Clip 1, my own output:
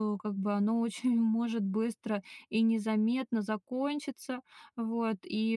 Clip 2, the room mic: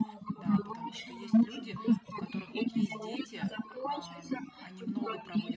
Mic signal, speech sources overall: both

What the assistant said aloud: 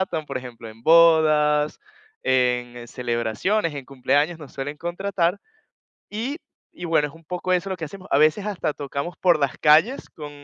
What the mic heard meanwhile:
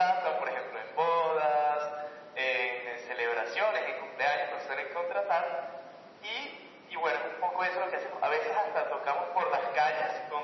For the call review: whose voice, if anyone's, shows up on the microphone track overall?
echo only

